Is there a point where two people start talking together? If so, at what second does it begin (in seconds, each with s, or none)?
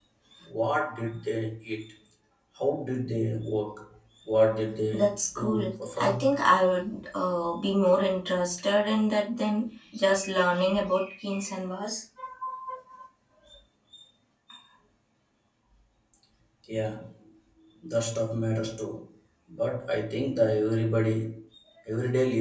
4.9 s